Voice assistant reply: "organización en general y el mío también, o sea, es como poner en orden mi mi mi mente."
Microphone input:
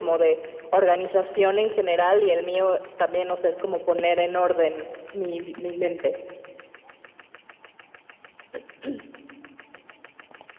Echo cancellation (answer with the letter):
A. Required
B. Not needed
A